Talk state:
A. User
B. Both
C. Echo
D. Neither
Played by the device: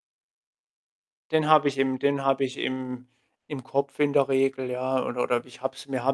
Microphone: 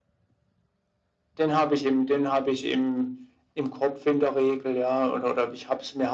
C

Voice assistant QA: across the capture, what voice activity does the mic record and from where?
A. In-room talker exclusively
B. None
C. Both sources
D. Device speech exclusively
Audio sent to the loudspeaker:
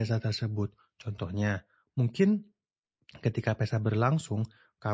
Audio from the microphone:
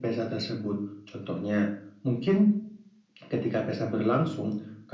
D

